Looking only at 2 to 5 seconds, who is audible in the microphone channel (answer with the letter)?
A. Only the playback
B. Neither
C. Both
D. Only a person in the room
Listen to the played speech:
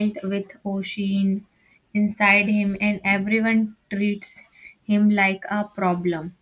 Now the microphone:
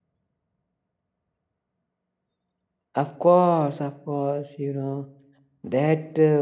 D